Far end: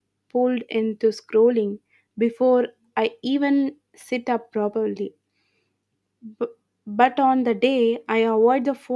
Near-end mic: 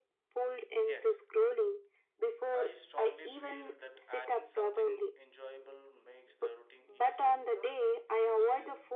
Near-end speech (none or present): present